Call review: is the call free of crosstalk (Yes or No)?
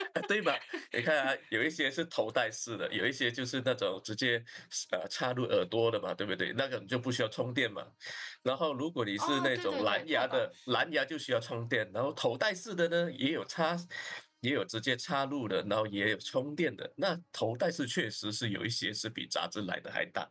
No